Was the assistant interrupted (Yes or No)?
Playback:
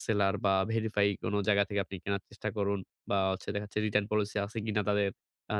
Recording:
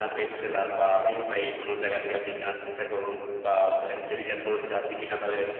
No